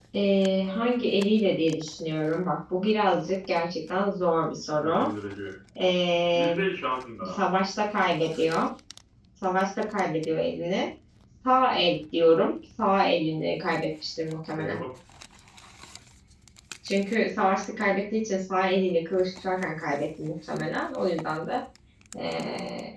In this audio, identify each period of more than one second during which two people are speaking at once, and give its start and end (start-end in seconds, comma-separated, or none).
none